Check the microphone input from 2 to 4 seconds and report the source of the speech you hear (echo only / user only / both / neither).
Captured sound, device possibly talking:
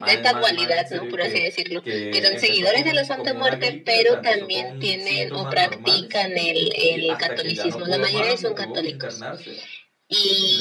both